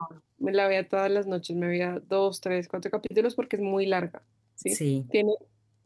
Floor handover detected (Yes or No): No